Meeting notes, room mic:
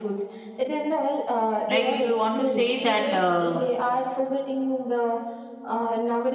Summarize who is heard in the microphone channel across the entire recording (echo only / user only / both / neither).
both